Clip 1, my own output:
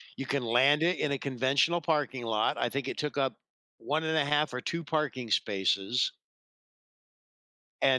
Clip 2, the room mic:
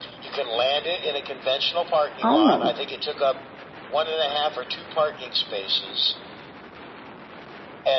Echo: present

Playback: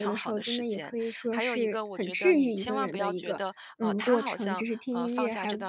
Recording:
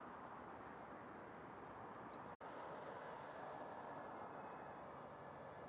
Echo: none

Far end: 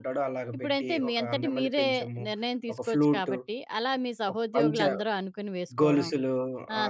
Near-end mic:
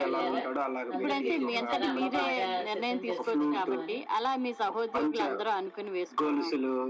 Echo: present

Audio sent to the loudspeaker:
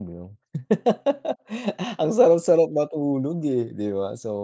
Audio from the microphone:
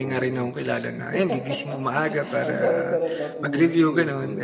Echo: present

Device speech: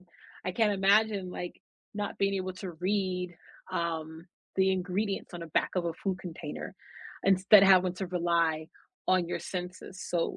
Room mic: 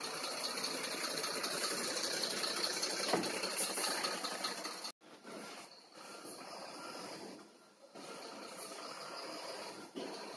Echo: none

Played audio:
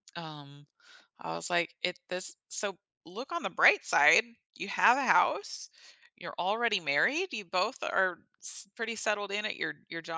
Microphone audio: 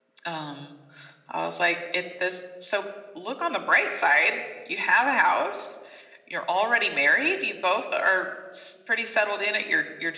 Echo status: present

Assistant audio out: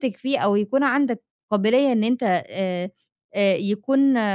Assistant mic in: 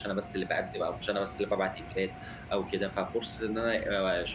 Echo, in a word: none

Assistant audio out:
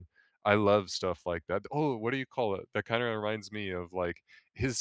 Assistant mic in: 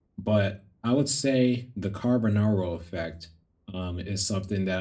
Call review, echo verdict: none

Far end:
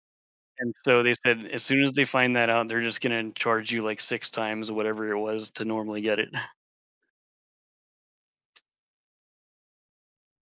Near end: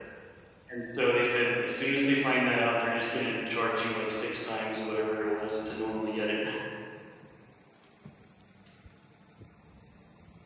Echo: present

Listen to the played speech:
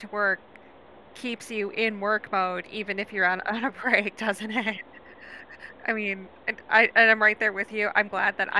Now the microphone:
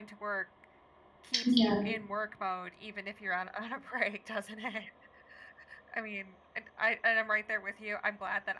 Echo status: present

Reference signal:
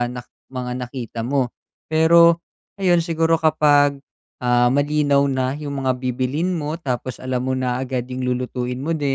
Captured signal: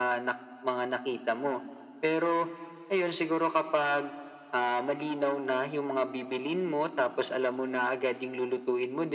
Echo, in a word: present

